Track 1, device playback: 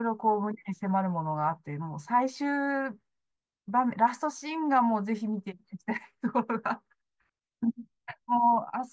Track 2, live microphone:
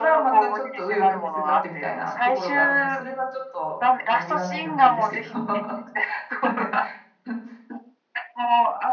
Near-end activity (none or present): present